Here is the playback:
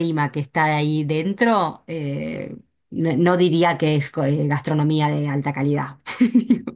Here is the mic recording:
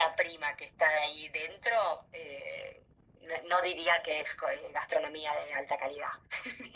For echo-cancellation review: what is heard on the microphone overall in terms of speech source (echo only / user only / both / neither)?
echo only